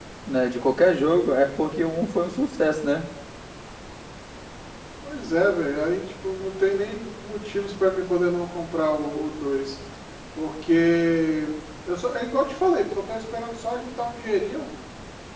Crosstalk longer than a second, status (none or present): none